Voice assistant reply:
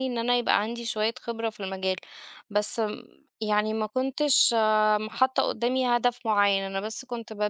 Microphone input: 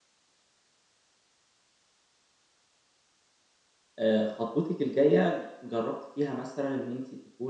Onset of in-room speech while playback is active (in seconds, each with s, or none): 4.0 s